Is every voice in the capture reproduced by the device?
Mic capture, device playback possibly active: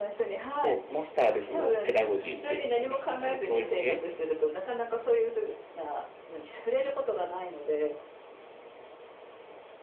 No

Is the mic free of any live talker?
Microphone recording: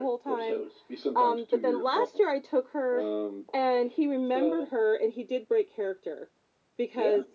Yes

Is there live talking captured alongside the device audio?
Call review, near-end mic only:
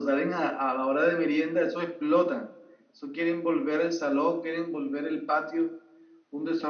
No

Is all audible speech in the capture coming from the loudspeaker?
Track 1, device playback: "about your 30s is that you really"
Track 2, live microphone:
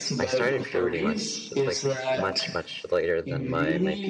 No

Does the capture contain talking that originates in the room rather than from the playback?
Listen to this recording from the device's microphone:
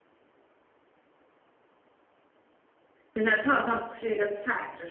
Yes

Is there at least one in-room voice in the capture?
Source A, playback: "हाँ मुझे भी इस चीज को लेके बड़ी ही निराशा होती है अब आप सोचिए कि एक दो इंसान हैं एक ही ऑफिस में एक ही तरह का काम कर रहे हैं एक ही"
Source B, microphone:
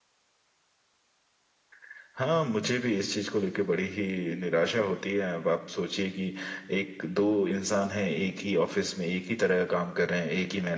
No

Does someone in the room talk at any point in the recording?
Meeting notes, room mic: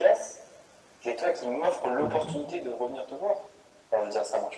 Yes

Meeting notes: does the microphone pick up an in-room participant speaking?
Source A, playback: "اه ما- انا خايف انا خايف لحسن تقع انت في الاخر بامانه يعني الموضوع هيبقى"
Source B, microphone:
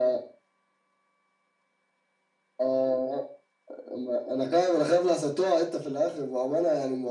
No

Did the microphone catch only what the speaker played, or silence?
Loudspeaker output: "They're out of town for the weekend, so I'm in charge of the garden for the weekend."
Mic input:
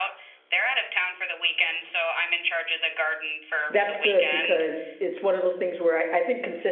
No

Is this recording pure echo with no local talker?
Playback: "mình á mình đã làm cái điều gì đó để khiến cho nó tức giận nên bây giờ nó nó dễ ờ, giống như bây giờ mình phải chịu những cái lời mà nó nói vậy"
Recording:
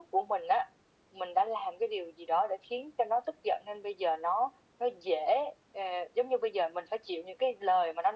Yes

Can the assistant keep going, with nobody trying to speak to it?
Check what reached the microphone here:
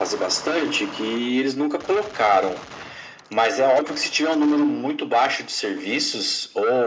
Yes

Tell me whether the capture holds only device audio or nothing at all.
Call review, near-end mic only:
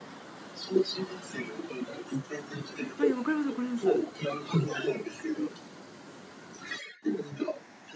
No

